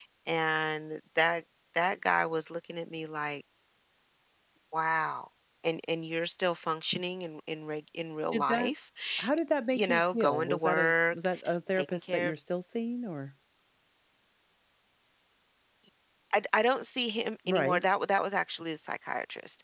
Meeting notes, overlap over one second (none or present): present